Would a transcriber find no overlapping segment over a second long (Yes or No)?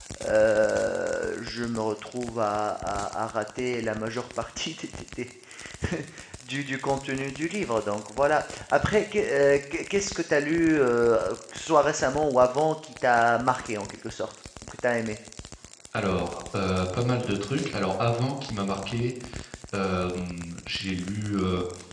Yes